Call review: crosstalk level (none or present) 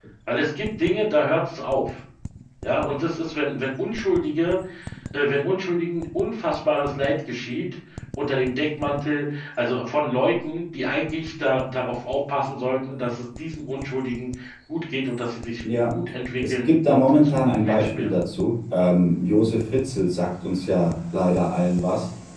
present